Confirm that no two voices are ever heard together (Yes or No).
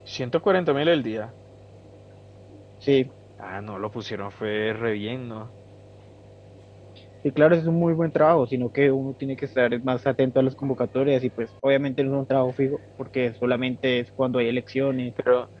Yes